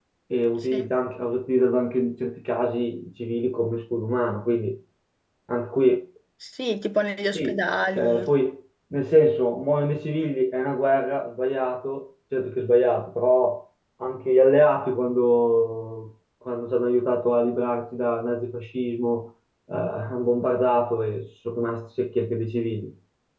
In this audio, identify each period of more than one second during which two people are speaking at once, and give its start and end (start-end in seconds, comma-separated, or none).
none